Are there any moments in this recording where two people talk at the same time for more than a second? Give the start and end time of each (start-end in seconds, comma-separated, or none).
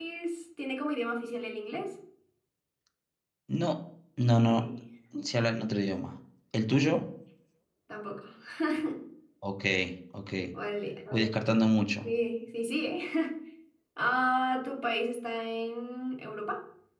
none